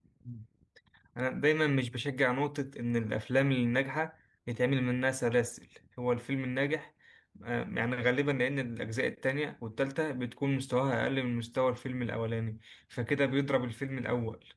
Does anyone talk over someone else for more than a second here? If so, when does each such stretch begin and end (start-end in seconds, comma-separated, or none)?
none